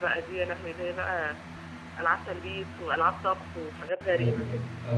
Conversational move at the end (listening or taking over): taking over